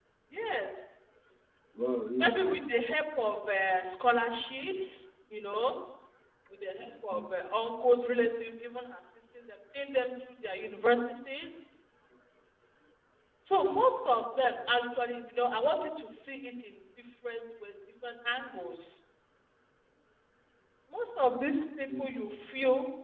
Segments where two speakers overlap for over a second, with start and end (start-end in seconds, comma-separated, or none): none